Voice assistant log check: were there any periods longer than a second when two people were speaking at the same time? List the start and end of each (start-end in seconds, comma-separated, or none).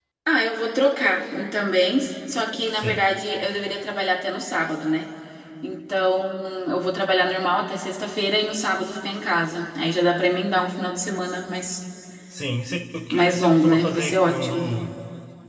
13.1-14.7